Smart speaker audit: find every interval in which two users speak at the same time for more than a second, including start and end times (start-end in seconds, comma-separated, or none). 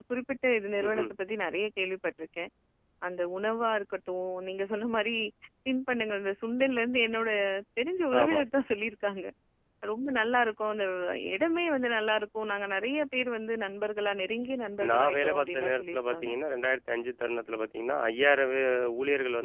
14.9-16.3